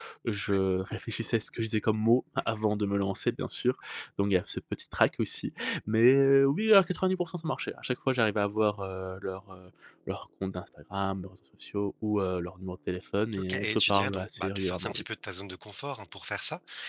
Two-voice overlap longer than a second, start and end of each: 13.4-15.0

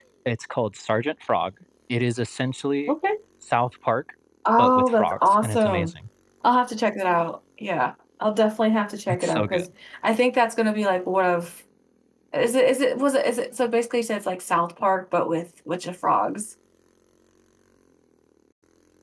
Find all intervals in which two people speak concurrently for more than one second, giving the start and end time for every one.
4.6-5.9

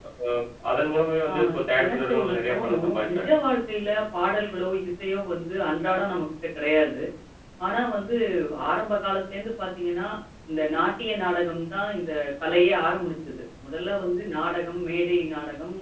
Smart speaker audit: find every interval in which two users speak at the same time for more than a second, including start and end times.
1.8-3.3

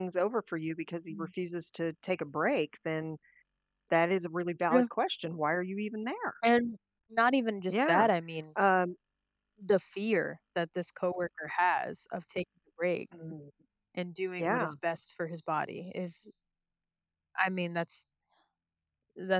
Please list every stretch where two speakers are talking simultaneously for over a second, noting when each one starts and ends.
none

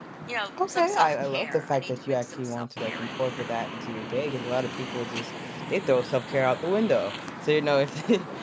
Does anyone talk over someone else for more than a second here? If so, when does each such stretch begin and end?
0.7-3.5

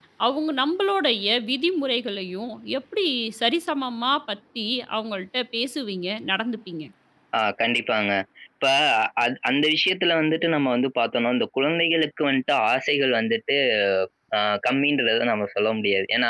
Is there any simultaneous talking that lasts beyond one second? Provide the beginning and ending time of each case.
none

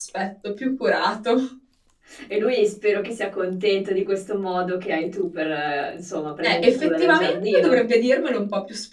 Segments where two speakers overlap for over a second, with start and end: 6.4-7.8

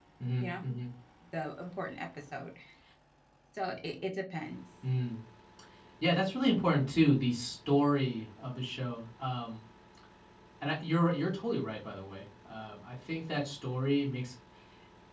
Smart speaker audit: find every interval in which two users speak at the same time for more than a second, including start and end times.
none

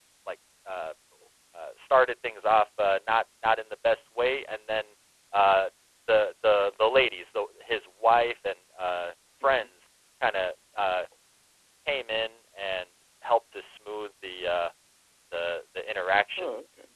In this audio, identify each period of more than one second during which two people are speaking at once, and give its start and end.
none

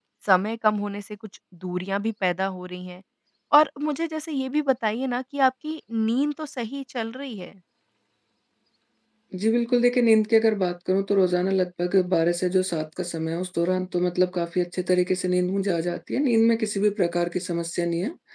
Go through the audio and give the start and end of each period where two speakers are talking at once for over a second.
none

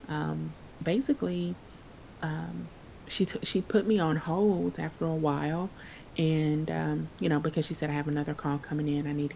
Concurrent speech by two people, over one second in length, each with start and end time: none

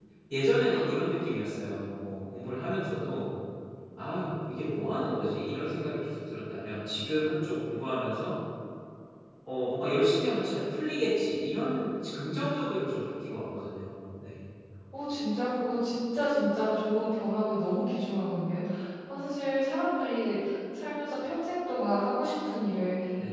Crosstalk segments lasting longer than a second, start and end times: none

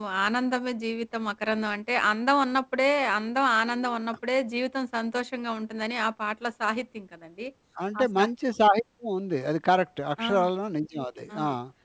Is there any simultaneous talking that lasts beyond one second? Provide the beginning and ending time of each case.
none

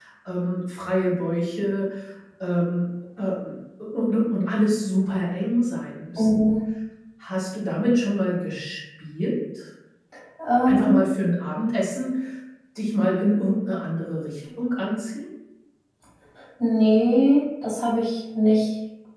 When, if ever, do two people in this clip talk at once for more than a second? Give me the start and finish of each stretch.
none

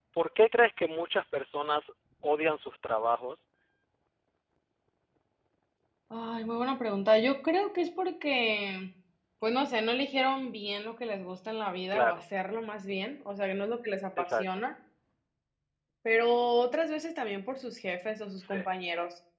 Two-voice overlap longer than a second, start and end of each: none

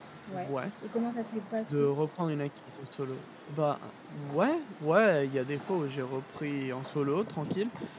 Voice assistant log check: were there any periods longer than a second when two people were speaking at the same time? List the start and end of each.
none

